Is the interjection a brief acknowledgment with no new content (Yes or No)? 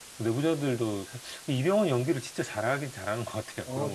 No